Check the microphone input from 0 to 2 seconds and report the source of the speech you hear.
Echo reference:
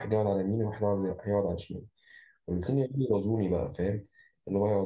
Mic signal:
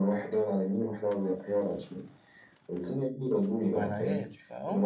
echo only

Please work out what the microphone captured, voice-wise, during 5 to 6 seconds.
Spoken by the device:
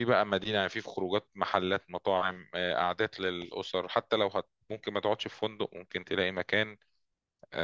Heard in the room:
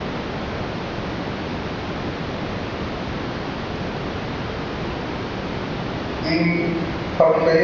neither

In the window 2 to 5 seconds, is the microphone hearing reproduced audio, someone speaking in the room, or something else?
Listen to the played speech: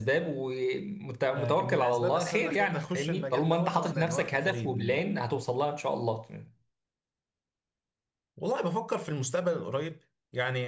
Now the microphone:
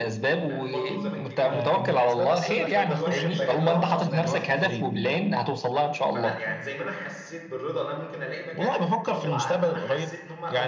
both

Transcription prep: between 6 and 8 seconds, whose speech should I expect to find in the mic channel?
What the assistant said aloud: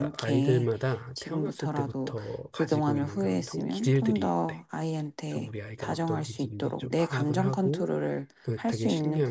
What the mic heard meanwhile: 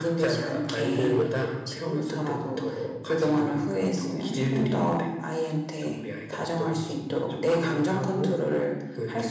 echo only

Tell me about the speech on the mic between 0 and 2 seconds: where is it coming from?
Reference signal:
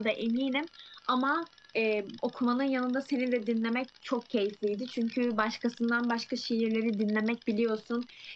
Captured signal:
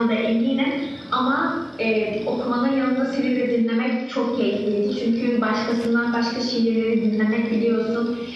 echo only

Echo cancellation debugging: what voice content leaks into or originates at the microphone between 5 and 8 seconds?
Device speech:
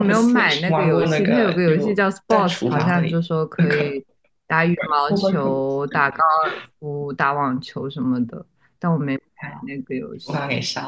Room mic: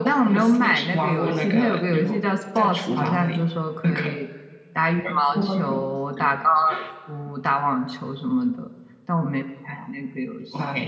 echo only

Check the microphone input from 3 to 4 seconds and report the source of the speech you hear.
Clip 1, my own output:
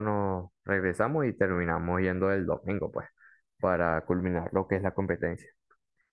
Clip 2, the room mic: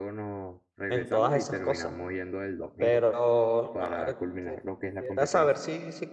both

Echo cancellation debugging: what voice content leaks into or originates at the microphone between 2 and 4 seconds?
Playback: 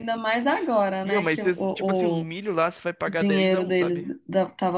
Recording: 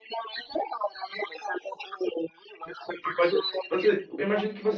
both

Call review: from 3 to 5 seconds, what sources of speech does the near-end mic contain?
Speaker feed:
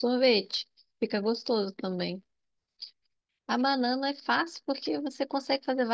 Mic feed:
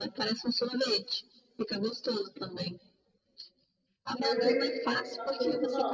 both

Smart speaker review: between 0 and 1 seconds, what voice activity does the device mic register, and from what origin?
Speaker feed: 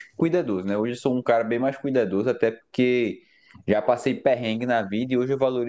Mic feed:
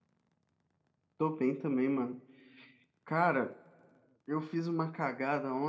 neither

